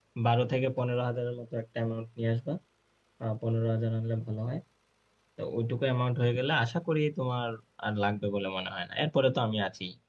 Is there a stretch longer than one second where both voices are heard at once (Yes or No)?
No